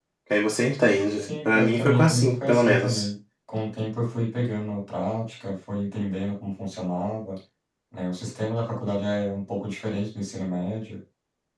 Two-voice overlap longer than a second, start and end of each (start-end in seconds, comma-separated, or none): 1.2-3.0